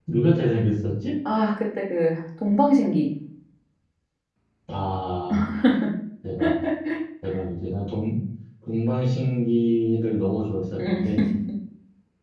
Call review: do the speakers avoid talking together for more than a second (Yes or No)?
Yes